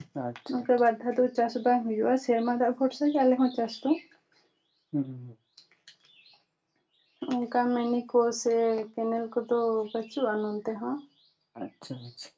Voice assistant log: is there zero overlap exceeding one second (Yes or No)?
Yes